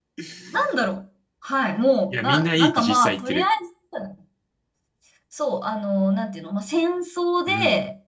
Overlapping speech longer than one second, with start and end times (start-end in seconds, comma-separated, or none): 2.1-3.4